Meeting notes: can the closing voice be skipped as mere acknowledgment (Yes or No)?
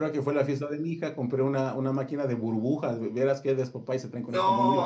No